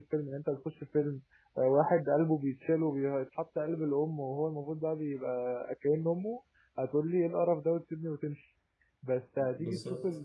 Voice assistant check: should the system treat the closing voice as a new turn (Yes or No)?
No